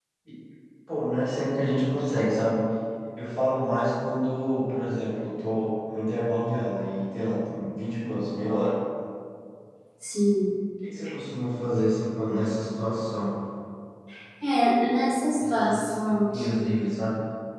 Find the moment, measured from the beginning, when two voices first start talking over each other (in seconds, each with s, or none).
15.4 s